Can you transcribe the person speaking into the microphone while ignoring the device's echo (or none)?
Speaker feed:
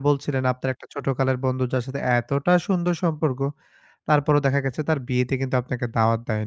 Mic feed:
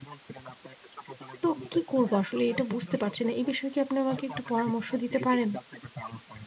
তো কি করবো আসলে এটা বুঝতে পারছি না। এই বিষয়ে কি আপনি আমাকে একটু পরামর্শ দিতে পারেন?